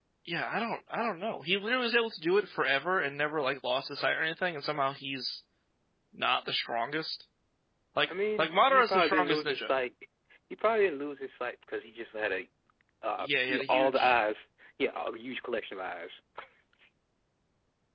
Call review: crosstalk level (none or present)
present